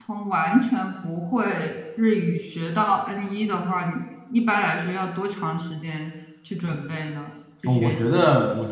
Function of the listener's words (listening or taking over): taking over